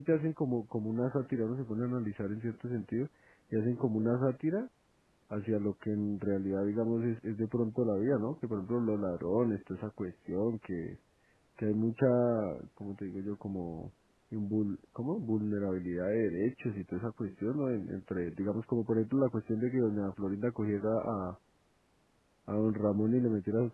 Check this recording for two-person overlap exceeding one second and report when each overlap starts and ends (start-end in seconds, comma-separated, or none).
none